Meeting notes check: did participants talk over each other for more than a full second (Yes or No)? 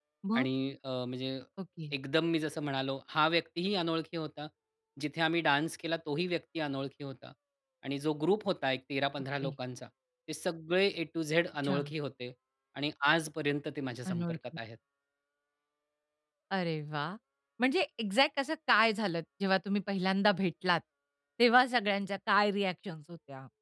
No